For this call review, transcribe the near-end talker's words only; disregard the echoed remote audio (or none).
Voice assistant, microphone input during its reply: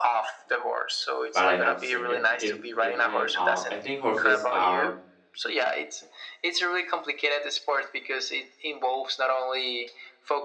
but I have seen it. It it ha- uh I think horses are